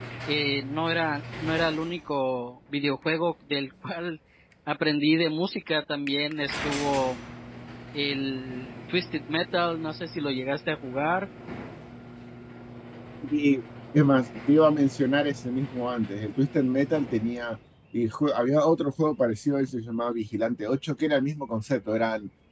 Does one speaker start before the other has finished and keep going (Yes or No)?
No